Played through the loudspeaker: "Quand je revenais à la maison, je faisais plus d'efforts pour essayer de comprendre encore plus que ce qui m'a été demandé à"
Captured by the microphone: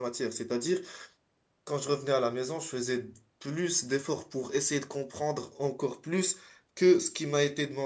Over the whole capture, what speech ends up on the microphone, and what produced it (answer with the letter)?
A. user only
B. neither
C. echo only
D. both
C